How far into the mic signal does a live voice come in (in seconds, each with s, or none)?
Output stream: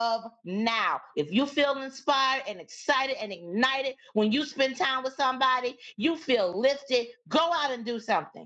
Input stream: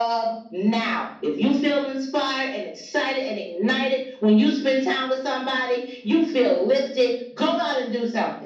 none